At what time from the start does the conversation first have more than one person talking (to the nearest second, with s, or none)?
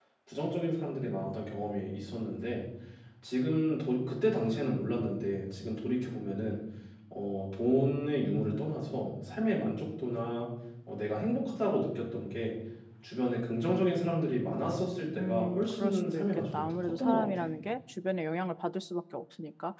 15 s